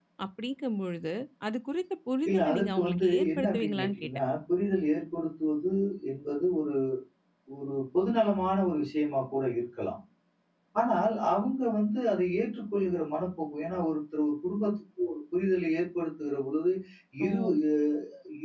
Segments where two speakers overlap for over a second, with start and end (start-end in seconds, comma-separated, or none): 2.3-4.1